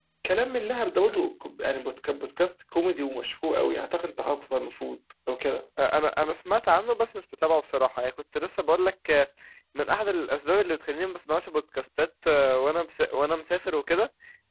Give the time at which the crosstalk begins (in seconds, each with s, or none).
none